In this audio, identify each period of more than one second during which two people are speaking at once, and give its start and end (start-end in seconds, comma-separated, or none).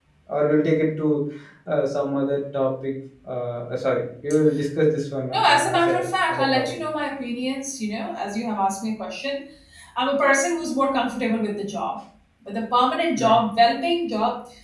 5.3-6.7